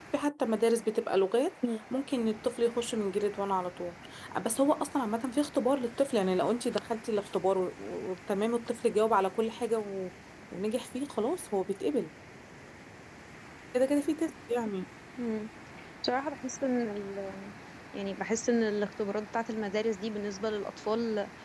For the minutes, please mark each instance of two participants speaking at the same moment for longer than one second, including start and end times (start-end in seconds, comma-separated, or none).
none